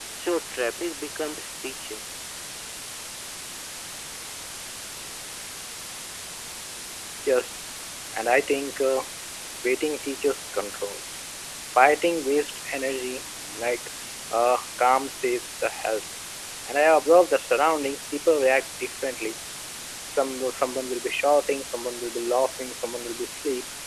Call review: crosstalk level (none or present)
none